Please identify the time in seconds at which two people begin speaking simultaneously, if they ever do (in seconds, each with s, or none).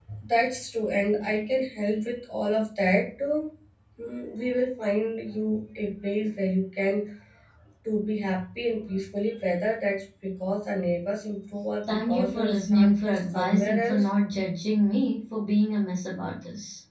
11.9 s